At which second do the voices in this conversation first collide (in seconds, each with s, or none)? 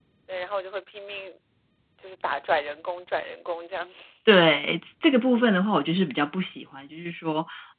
none